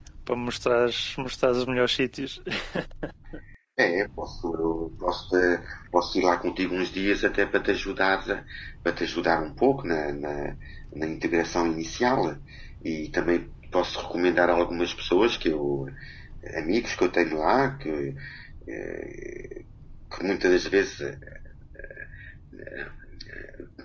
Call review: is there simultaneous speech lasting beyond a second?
No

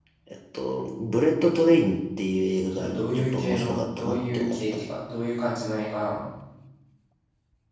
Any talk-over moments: Yes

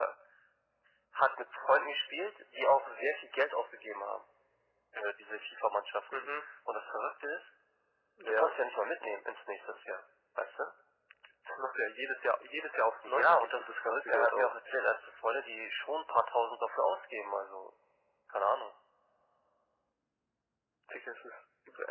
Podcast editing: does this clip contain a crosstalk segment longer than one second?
Yes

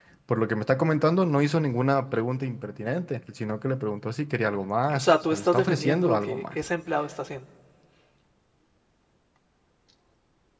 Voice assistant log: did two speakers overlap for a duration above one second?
Yes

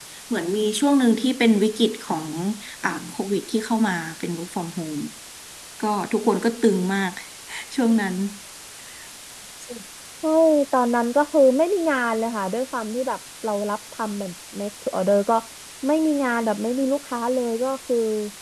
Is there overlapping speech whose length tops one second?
No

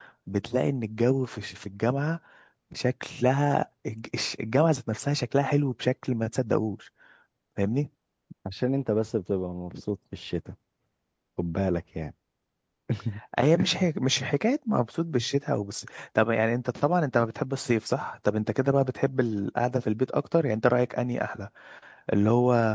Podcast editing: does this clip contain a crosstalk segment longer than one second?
No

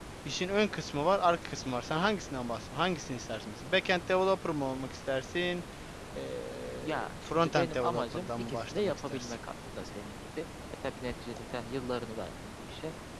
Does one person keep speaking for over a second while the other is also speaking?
Yes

